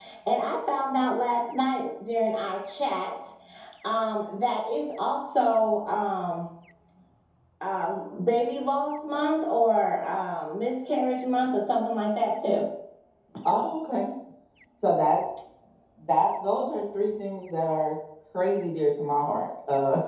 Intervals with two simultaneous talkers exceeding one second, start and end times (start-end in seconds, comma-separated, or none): none